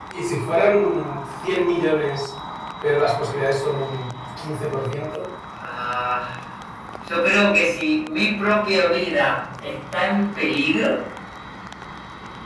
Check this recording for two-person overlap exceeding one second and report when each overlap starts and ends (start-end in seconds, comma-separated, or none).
none